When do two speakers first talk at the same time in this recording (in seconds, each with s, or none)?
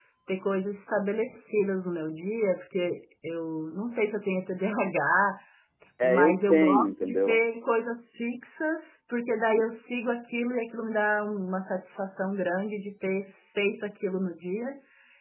6.0 s